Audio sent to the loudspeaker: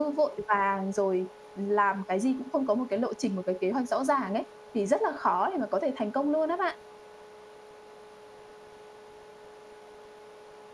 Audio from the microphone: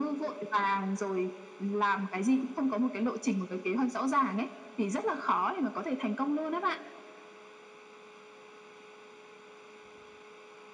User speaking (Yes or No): No